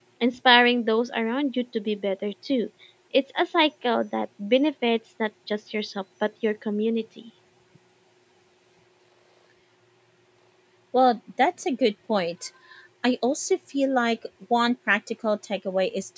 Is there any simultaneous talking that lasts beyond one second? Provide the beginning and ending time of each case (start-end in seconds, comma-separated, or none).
none